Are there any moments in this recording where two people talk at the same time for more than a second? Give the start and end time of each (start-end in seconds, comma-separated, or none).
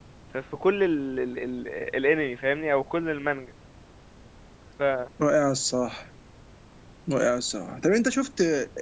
none